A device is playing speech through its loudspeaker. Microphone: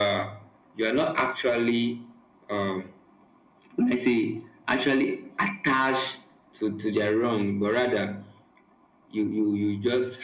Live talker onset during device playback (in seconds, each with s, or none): none